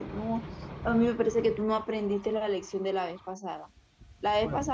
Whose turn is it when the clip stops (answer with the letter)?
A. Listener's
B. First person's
B